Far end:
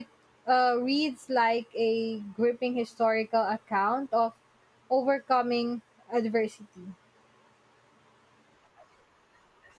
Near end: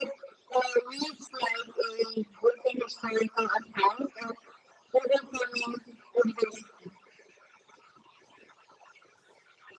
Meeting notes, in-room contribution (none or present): none